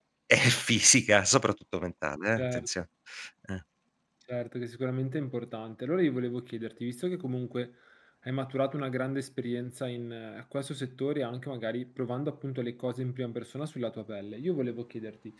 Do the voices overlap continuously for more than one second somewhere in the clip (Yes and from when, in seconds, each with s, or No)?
No